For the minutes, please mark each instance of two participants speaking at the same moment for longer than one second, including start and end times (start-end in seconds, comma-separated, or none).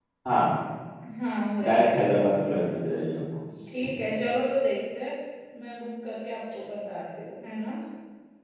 none